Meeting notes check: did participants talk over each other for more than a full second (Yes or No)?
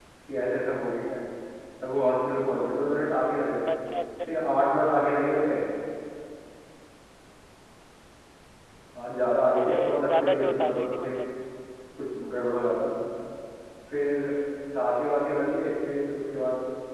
Yes